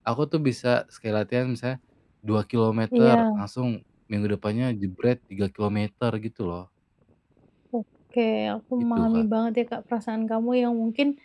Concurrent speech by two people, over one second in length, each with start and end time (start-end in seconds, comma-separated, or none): none